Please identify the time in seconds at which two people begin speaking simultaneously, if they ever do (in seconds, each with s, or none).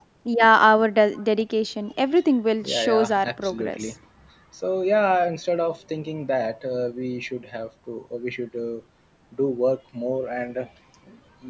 2.6 s